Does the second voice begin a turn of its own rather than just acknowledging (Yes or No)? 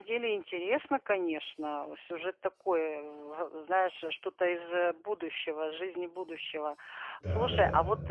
No